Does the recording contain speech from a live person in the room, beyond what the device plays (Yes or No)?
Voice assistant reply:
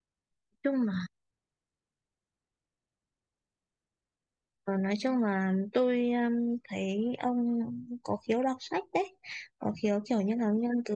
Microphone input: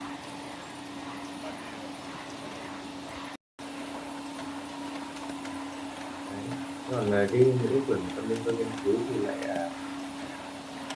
Yes